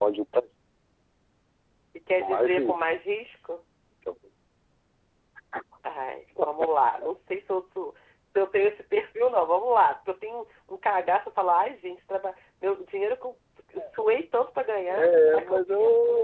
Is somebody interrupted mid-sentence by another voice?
Yes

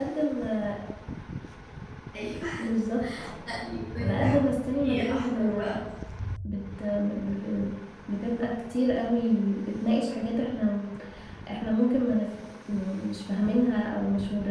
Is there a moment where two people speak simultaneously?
Yes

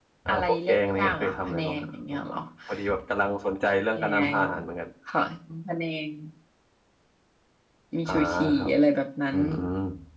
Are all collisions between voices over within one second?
No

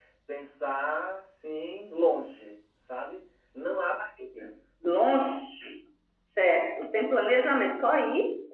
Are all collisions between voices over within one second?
Yes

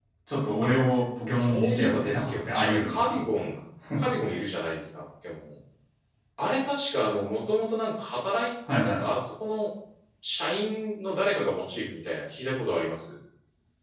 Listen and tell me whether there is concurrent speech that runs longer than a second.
Yes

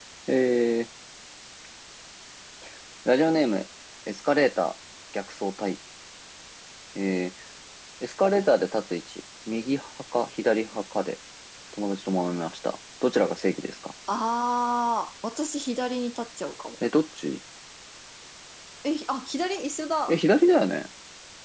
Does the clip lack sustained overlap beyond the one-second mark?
Yes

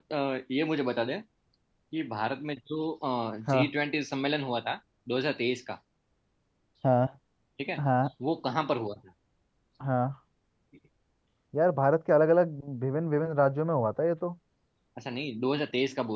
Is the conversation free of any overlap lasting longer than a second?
Yes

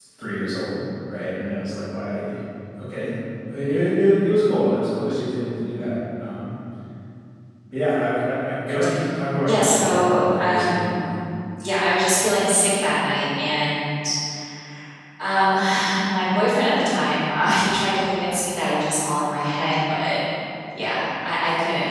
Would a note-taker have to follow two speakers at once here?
Yes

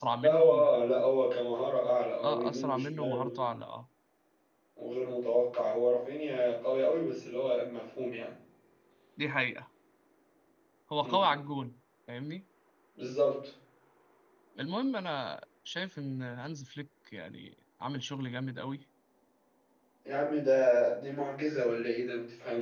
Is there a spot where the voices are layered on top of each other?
Yes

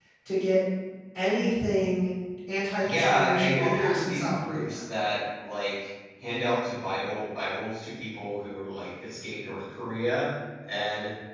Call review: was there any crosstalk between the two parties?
Yes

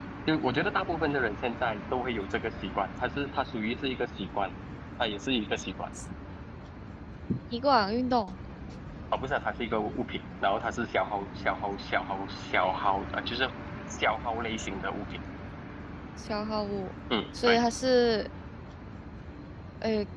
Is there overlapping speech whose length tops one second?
No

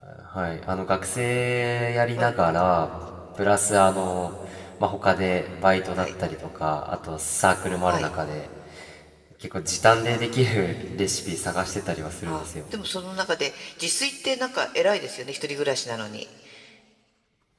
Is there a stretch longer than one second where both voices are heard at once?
No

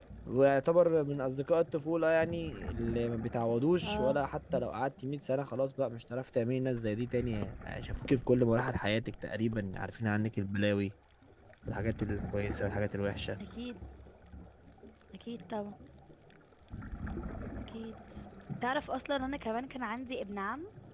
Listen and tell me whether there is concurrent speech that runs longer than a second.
No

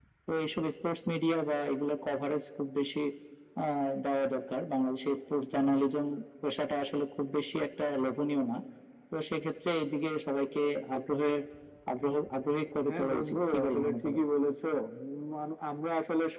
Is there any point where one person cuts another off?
Yes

